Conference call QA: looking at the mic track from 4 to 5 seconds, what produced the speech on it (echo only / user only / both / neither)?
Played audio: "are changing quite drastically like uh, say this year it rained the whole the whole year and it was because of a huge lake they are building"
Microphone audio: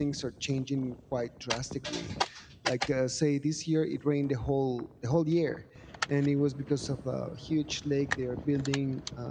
echo only